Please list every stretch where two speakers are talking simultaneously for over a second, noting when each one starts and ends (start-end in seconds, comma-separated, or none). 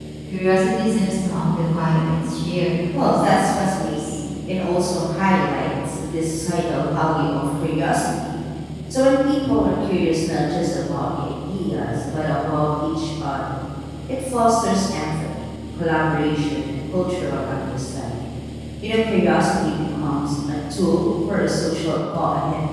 3.0-4.2